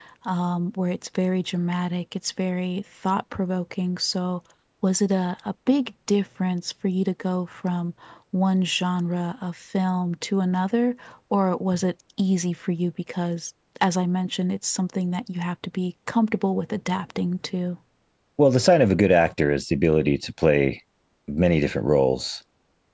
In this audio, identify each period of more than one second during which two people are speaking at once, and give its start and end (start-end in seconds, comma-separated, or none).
none